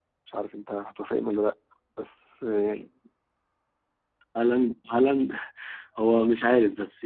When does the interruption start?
none

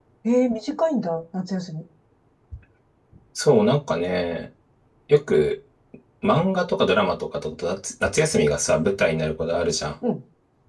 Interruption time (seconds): none

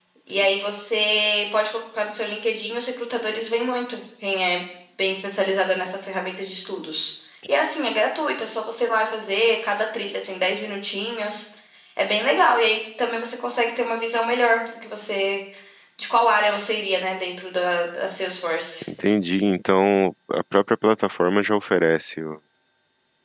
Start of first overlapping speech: none

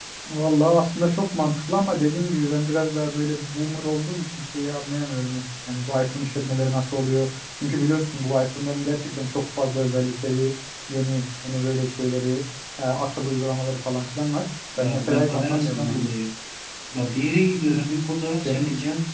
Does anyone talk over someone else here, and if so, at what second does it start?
14.8 s

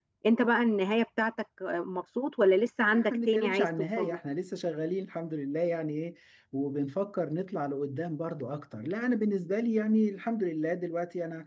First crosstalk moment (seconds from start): 2.9 s

